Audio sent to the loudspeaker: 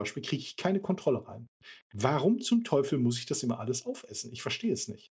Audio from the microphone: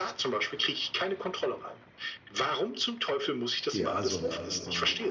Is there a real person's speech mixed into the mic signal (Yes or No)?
Yes